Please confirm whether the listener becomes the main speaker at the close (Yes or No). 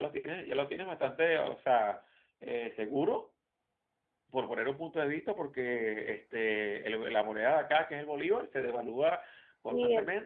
Yes